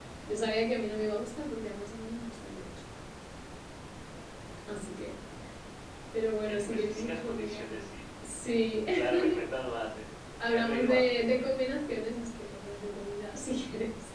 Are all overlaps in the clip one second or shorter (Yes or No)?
No